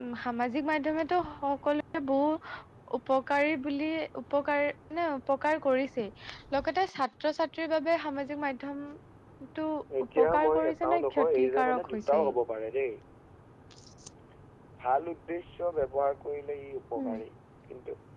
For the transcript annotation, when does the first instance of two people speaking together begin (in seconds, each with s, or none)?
10.2 s